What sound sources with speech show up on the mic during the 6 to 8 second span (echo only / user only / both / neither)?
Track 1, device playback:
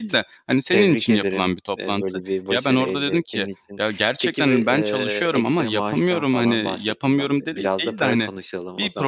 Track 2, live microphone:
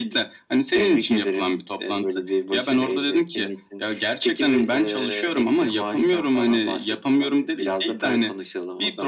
echo only